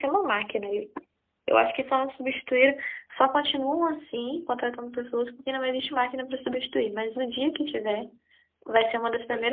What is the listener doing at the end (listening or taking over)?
listening